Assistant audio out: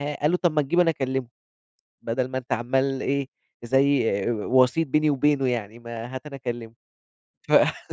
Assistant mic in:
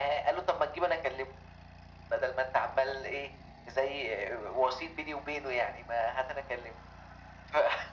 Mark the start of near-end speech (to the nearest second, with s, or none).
none